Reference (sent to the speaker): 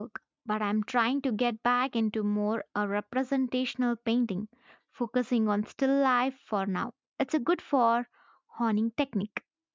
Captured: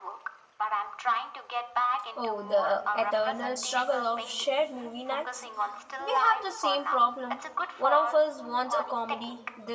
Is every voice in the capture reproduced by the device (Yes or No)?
No